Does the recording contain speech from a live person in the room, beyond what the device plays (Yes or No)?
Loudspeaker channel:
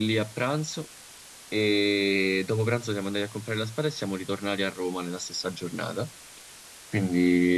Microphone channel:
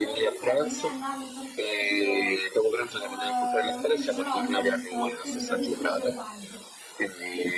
Yes